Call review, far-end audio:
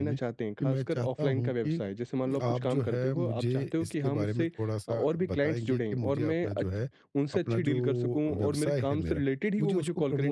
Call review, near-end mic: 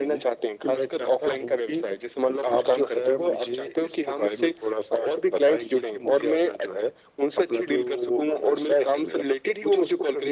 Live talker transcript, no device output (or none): none